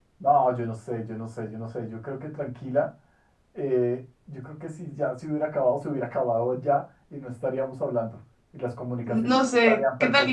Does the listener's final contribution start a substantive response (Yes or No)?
Yes